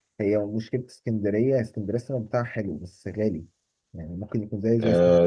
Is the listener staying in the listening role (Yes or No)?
No